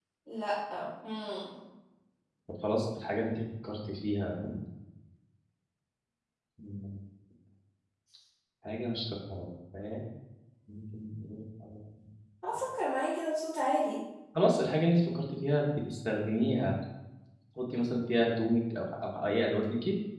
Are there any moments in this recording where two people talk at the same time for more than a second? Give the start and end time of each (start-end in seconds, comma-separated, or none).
none